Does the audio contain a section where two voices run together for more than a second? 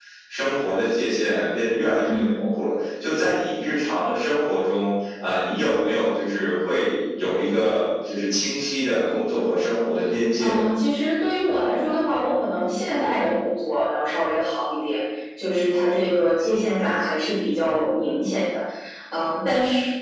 No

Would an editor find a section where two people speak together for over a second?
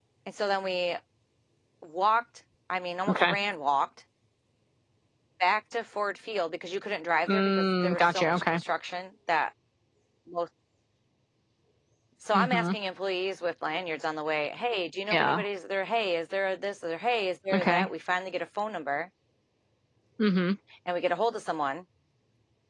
Yes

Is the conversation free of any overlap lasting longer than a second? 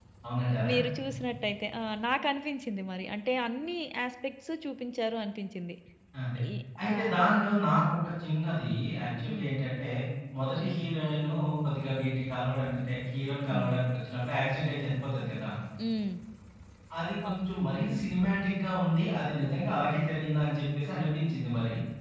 Yes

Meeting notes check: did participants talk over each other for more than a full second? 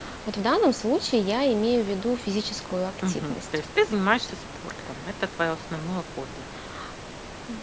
No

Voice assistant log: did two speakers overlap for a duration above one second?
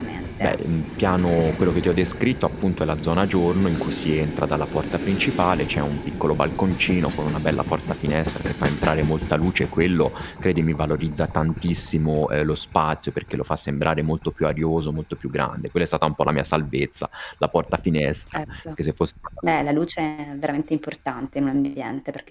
No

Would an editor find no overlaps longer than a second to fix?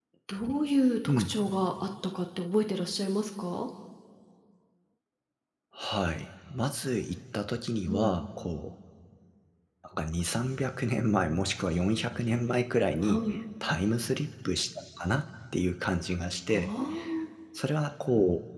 Yes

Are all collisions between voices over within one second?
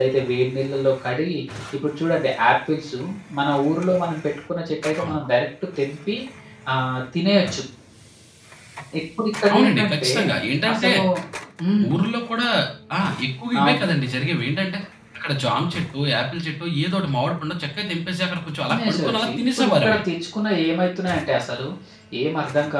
No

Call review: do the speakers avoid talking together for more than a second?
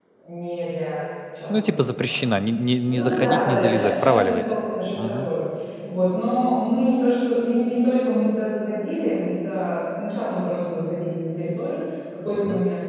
No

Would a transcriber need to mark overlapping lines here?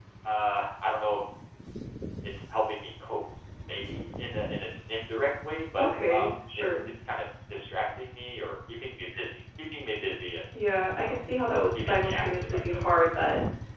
Yes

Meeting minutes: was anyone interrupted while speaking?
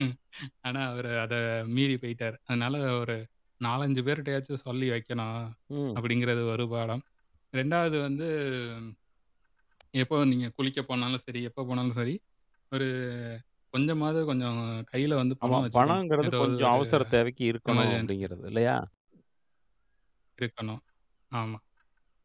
Yes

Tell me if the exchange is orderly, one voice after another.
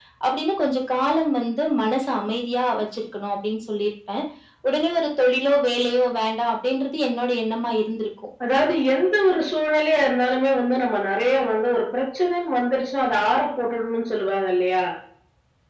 Yes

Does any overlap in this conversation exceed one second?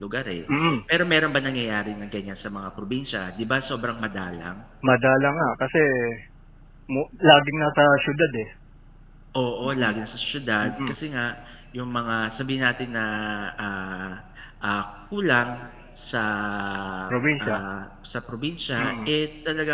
No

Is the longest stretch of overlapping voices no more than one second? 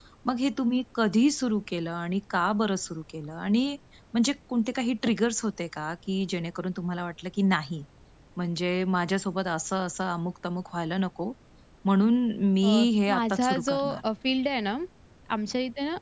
No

